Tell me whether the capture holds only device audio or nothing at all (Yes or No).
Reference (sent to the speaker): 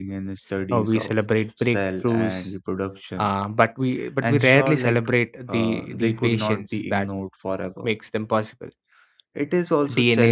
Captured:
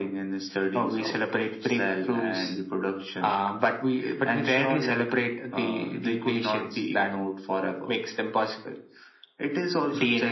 Yes